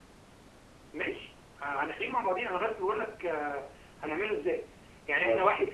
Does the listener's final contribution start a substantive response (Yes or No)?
No